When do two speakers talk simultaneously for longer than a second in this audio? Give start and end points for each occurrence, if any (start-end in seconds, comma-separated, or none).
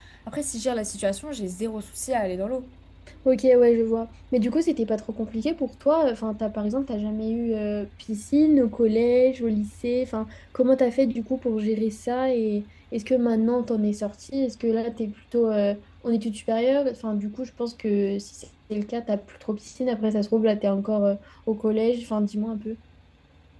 none